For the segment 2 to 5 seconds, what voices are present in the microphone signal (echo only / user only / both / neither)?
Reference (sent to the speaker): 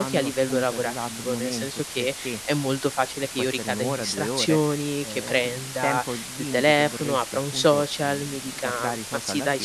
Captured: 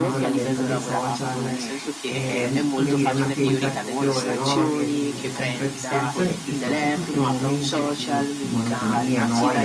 both